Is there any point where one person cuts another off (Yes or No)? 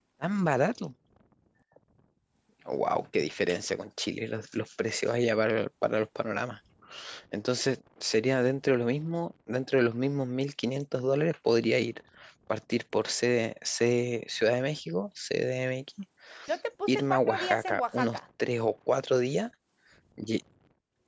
Yes